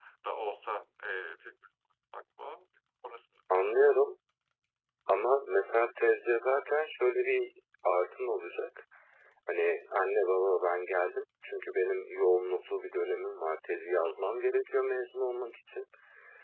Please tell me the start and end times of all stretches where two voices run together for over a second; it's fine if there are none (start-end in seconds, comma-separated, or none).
none